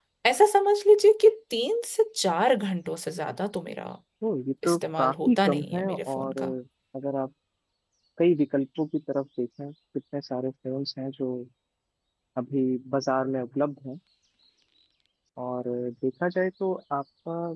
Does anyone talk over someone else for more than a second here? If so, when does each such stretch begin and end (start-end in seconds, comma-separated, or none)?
4.6-6.4